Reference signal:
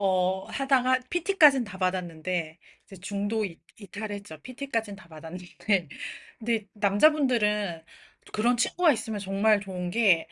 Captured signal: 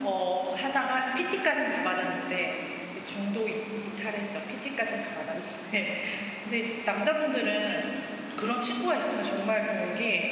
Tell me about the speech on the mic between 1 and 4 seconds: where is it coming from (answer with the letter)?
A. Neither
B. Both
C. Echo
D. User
C